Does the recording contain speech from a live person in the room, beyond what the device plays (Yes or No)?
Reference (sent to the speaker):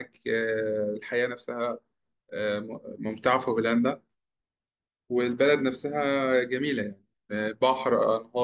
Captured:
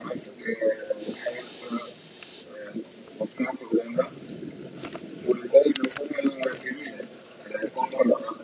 No